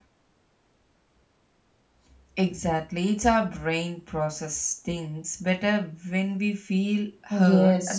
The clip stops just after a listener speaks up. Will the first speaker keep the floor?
No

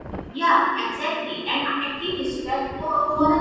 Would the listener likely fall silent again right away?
Yes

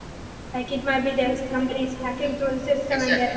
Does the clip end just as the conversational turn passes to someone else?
Yes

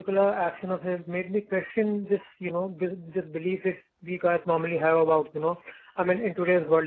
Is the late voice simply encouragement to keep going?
Yes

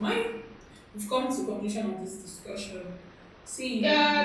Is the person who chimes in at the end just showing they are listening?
No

